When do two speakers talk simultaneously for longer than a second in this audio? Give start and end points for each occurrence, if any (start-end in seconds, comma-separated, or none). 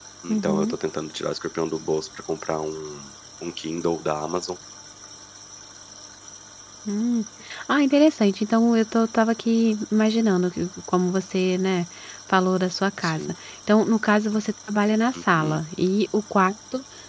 none